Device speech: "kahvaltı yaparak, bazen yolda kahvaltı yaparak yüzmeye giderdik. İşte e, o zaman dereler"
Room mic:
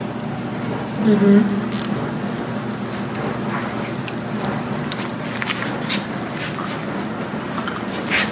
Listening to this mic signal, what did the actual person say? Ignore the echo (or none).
Hı hı.